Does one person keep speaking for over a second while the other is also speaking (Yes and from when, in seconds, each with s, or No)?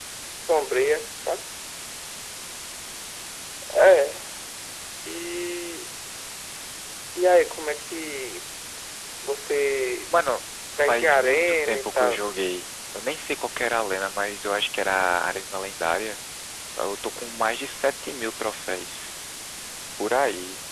Yes, from 10.9 s